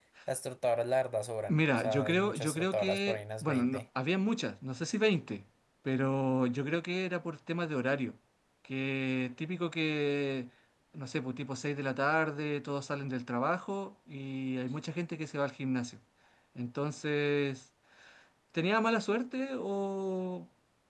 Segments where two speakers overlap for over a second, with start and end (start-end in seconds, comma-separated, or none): 1.5-3.8